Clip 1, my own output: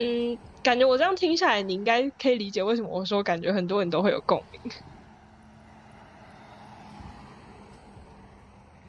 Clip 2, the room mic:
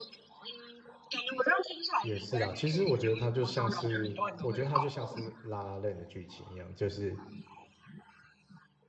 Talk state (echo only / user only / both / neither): both